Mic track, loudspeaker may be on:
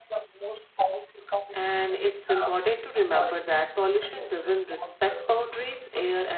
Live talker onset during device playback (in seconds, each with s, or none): 1.6 s